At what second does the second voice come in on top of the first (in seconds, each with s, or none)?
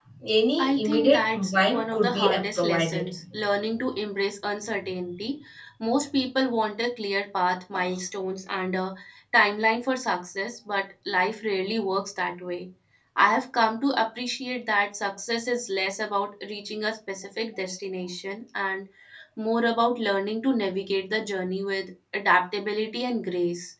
0.6 s